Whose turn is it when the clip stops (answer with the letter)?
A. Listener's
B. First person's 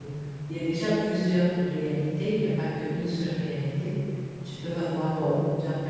B